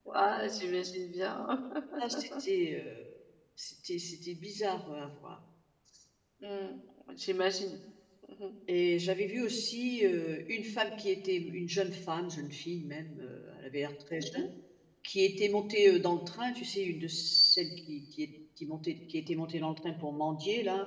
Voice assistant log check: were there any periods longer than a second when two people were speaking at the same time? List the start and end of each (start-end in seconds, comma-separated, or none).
none